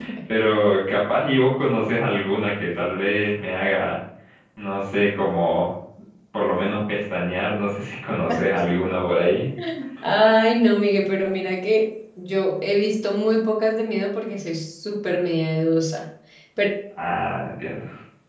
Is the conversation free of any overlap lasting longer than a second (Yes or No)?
Yes